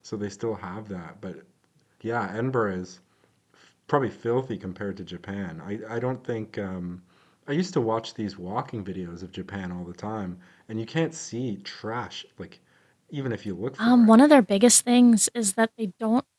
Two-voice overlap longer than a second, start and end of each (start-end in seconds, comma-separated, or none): none